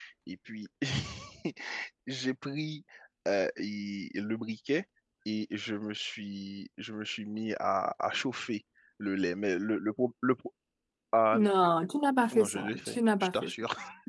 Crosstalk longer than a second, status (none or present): present